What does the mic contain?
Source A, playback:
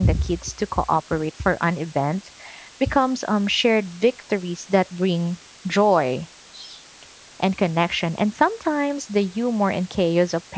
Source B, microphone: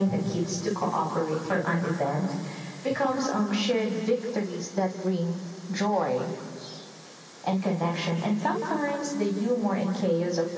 echo only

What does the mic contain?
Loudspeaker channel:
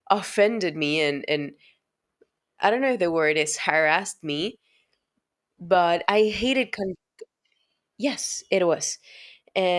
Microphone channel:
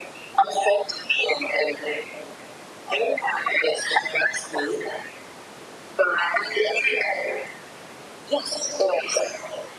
echo only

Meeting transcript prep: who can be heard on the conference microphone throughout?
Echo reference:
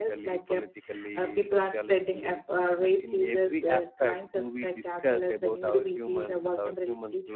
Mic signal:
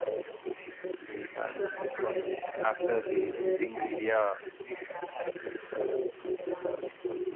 both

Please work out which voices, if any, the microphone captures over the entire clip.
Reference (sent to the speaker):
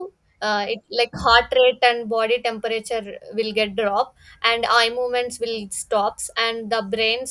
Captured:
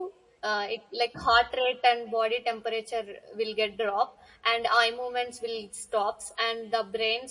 echo only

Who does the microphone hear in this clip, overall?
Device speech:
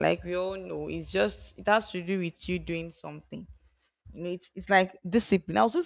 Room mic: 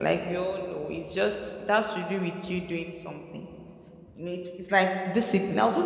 echo only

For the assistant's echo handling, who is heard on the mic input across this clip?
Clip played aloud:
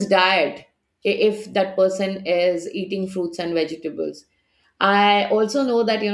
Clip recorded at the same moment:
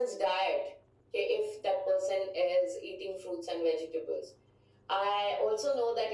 echo only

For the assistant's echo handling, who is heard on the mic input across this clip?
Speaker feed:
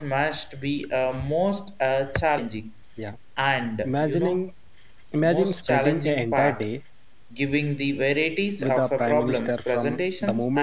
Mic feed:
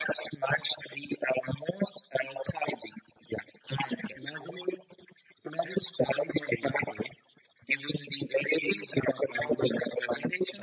both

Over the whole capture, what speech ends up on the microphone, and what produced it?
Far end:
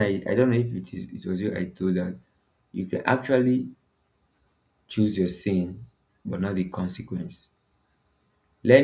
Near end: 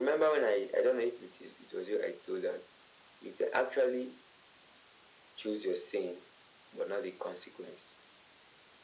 echo only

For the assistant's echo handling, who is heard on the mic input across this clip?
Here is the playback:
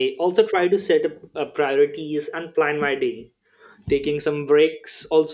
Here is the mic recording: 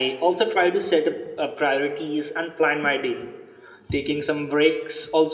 echo only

